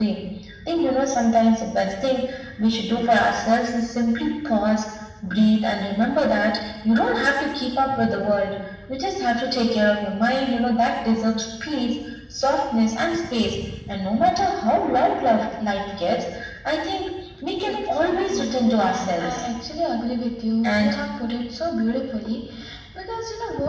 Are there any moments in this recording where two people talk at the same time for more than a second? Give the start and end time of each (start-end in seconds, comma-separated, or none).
17.6-19.4